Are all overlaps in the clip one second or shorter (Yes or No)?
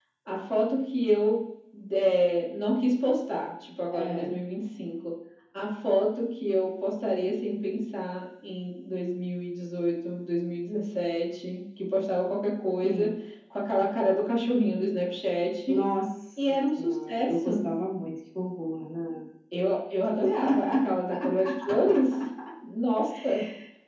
No